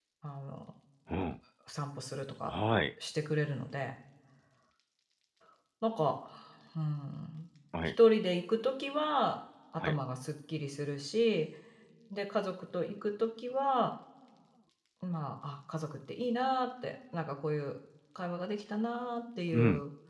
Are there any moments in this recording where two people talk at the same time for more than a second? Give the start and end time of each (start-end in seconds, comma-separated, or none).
none